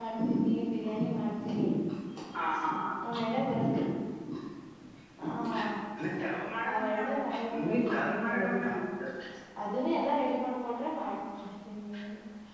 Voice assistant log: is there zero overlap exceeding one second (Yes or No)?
No